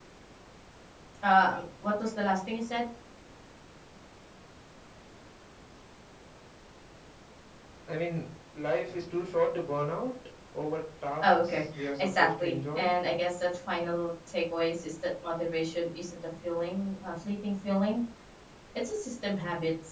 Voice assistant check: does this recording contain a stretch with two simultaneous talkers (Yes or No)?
Yes